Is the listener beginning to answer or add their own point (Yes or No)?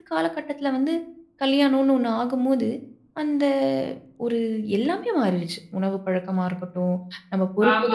Yes